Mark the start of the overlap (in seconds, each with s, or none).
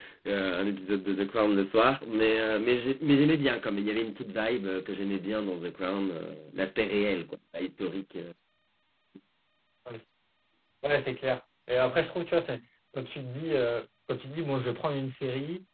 none